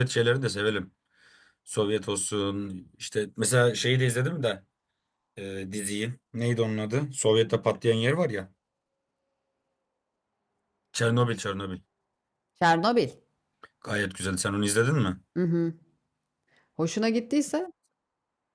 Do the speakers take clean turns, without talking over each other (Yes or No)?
Yes